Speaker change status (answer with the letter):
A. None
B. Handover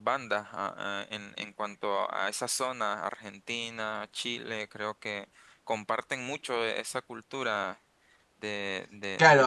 B